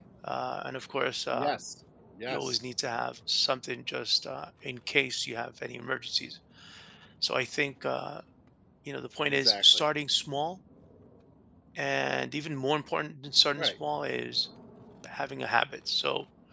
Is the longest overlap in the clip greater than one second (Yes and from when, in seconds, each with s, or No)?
No